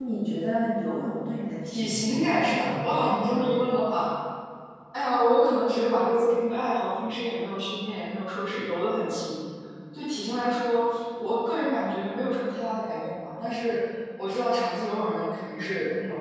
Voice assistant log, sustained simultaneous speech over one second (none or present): present